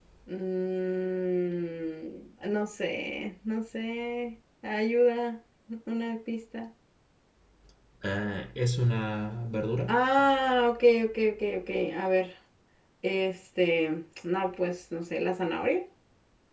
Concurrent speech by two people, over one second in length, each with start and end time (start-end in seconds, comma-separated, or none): none